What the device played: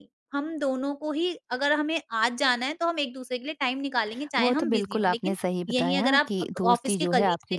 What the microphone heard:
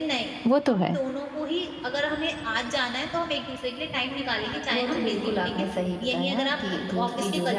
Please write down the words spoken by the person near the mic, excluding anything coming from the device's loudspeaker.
वो तो है।

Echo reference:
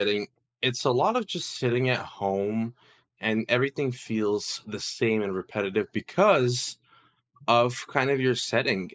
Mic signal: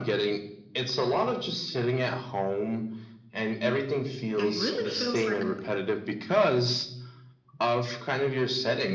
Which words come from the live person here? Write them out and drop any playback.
it really feels like

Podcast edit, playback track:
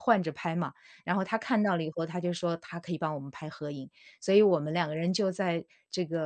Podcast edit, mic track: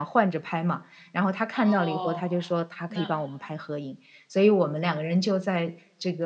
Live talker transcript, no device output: 哦，那

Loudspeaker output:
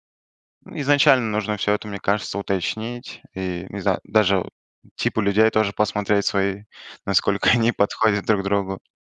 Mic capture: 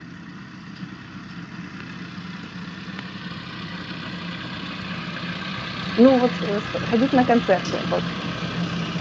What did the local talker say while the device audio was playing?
Ну, вот, э, ск ходить на концерты, вот.

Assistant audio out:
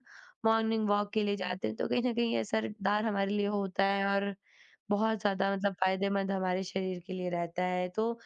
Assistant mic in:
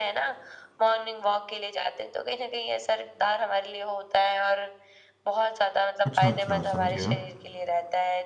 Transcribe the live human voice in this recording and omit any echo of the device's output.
अच्छा, अच्छा, समझ गया।

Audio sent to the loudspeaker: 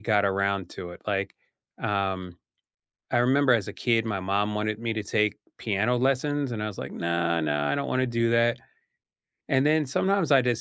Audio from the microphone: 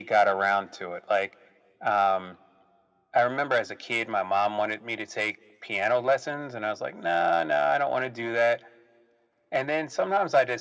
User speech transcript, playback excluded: none

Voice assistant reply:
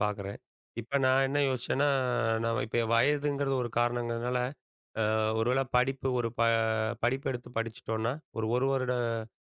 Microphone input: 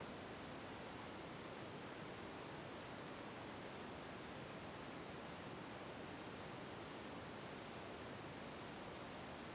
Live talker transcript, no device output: none

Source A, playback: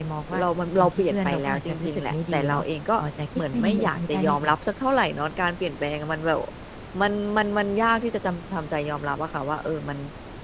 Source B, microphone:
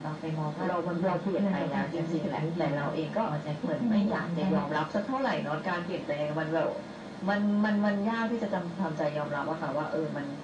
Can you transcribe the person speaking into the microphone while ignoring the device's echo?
none

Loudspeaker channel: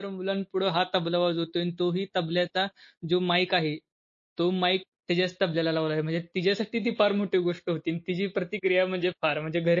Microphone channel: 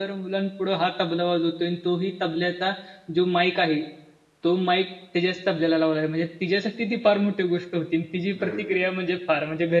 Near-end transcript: वेळ दिला.

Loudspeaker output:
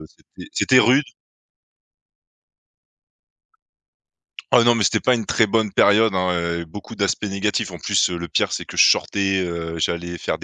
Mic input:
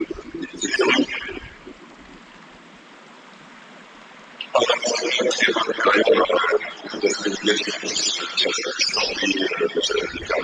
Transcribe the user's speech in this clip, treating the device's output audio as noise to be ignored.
none

